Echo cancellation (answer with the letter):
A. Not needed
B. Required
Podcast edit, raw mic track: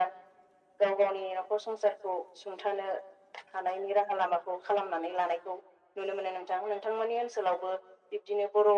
B